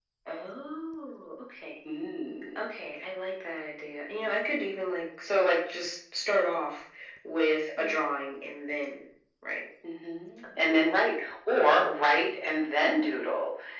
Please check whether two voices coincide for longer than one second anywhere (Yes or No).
No